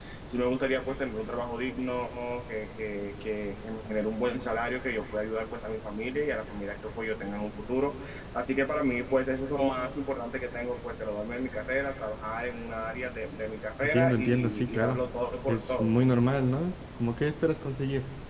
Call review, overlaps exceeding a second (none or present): present